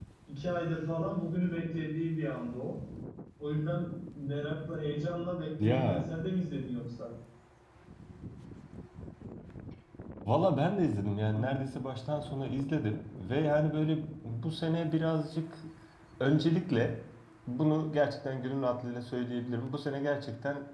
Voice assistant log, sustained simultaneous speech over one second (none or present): none